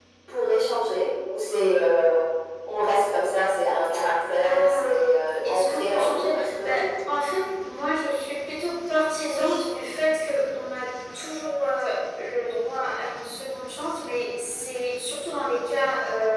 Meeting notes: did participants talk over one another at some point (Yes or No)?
Yes